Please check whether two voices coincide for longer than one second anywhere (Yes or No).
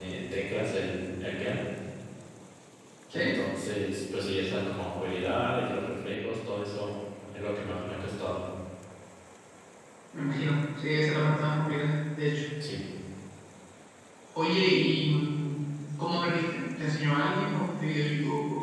No